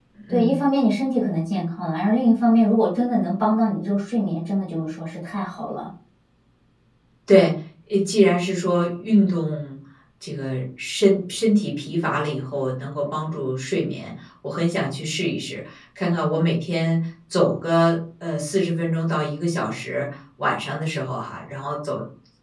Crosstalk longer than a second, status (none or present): none